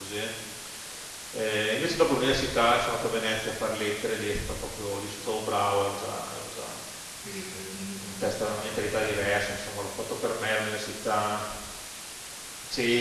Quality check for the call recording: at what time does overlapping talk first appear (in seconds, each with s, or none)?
8.1 s